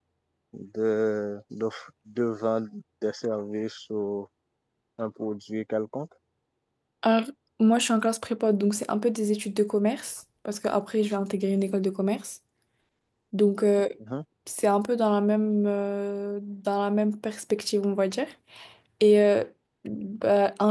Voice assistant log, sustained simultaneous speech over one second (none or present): none